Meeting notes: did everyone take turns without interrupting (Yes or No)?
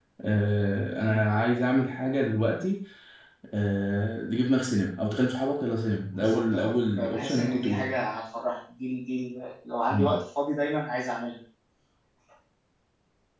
No